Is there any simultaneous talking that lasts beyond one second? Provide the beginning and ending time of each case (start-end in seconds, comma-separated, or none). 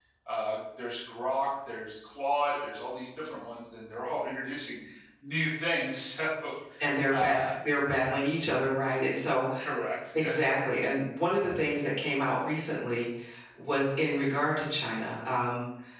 none